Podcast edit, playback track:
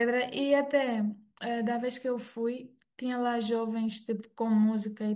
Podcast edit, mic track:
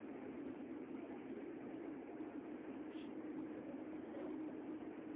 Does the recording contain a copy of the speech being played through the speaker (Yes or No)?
No